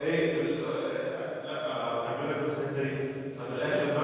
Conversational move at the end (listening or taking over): listening